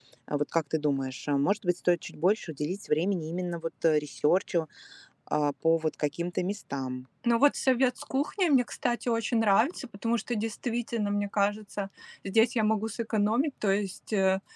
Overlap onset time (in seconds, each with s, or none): none